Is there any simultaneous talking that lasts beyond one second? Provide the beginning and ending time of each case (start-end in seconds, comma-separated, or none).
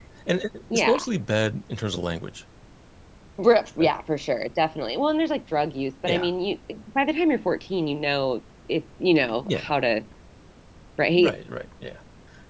none